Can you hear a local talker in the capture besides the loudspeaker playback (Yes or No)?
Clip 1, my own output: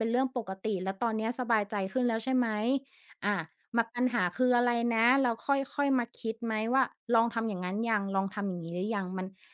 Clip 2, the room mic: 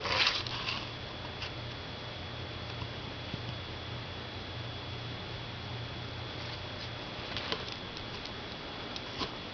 No